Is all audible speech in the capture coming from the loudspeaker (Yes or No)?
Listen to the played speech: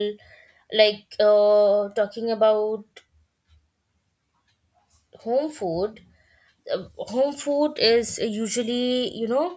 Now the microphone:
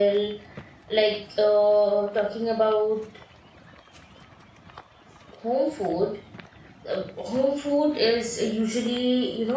Yes